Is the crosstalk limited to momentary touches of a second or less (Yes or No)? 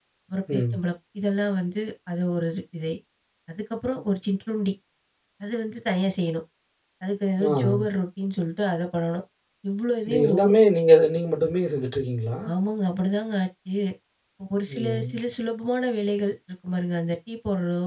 Yes